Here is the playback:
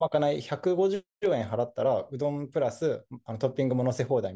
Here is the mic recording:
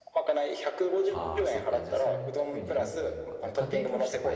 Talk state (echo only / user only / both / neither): both